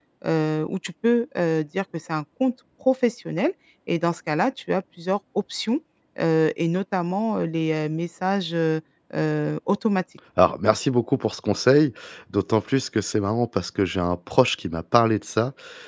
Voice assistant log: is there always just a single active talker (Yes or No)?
Yes